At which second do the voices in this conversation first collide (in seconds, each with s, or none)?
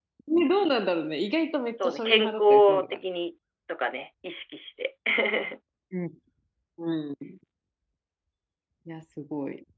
1.8 s